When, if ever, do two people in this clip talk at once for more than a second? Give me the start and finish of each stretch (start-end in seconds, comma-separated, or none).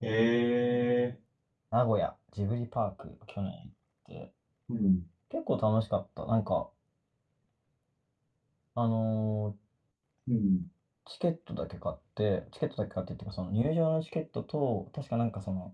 none